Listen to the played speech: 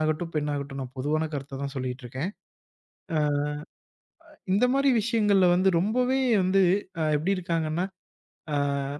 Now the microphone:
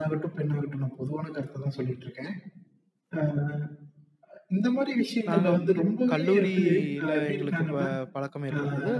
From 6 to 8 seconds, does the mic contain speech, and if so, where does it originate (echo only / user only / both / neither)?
both